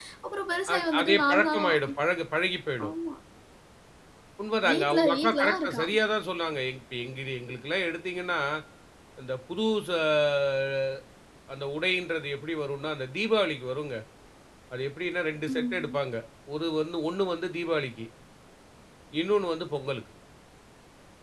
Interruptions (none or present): present